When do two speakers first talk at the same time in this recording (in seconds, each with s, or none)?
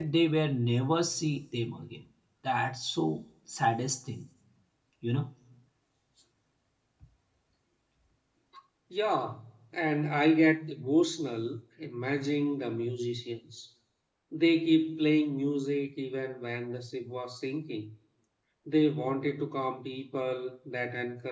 none